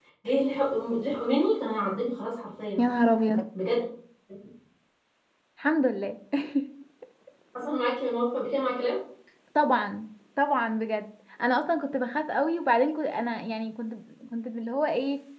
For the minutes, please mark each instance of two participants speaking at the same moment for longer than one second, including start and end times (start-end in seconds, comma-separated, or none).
none